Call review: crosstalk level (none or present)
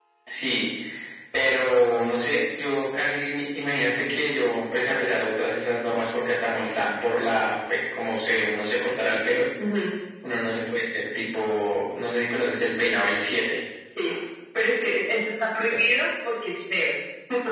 none